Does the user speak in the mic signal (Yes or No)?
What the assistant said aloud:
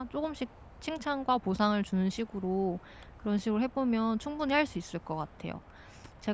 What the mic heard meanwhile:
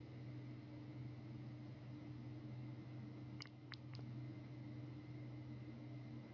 No